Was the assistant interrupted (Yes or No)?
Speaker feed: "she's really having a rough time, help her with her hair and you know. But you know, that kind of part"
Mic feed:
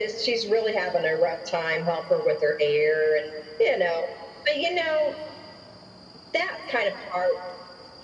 No